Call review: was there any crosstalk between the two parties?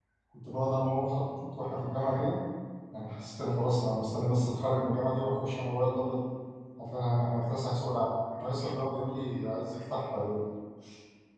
No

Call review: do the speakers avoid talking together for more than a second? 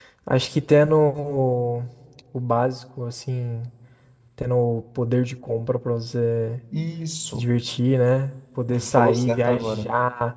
No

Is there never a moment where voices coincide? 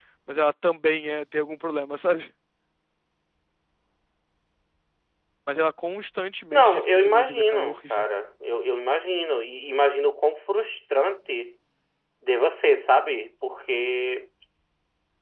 No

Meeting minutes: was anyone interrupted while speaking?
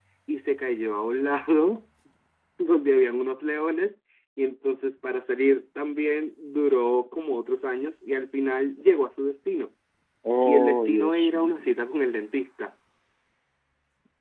Yes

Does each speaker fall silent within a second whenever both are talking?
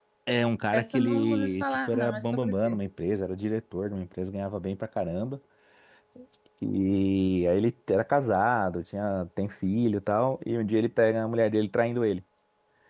No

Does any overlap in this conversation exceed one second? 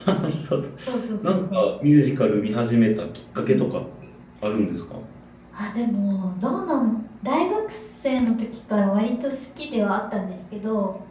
No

